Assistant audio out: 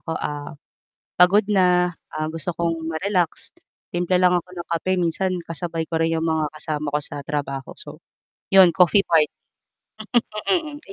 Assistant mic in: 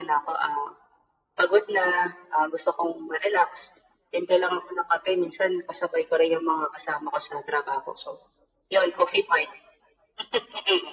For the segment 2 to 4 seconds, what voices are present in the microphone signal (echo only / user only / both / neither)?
echo only